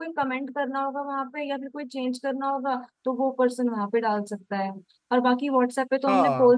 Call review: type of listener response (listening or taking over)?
listening